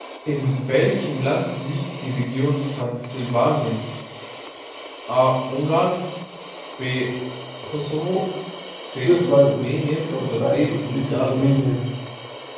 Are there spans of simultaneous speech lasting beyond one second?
Yes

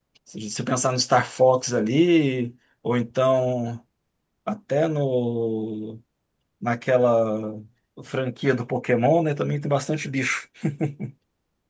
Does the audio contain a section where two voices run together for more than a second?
No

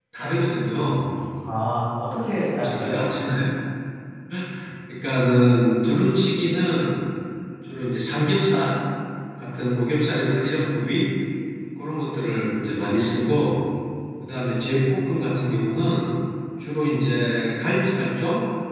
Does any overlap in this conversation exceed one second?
No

